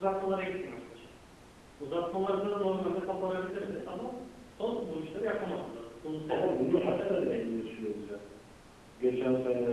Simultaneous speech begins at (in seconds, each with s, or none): 6.3 s